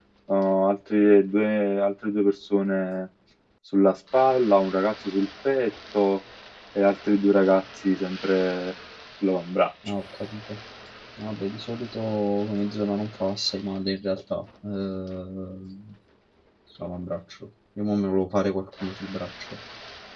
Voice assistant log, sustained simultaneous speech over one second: none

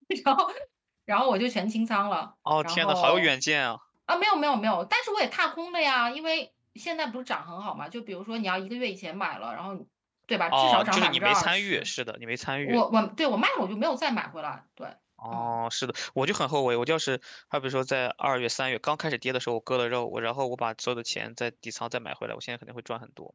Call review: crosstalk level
present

